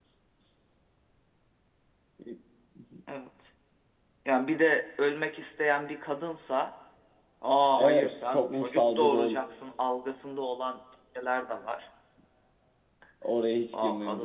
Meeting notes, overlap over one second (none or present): present